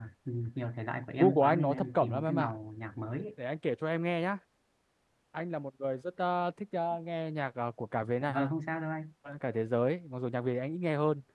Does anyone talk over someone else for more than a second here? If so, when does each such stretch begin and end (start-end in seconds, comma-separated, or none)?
1.1-2.5